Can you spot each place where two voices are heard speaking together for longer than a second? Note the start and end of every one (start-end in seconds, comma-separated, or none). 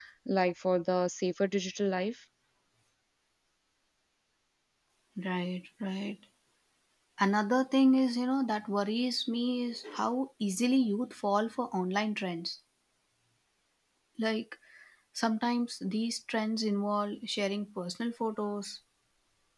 none